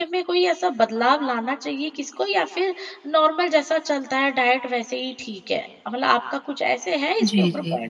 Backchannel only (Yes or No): No